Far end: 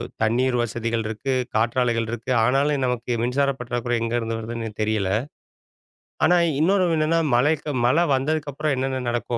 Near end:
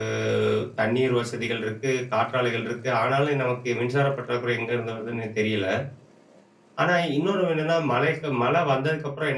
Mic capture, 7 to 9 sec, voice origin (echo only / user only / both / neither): echo only